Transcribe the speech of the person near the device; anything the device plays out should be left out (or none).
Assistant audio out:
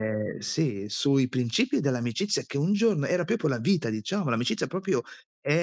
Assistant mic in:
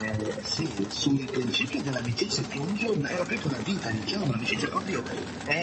none